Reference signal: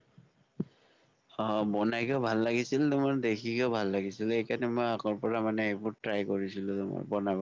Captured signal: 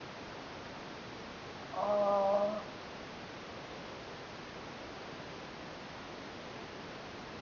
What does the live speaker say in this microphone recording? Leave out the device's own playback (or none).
অ'